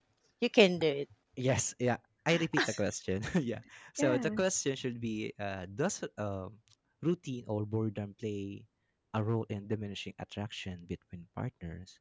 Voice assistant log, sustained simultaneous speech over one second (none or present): none